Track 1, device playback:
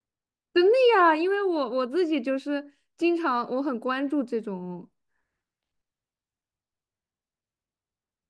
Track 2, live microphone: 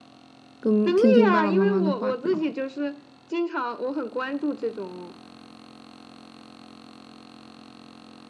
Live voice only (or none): 跟听听爸爸妈妈的话比较好。